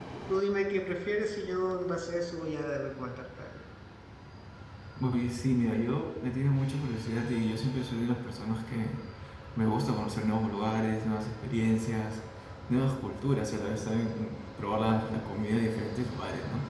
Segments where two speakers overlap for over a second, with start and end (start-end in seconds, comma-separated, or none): none